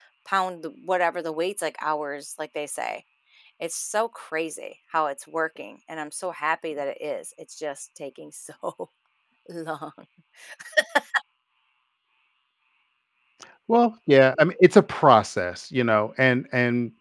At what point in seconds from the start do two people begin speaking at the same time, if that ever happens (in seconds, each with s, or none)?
none